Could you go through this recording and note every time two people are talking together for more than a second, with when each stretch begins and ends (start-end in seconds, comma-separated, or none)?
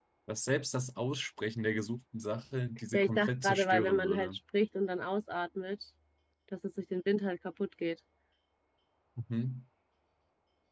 2.9-4.4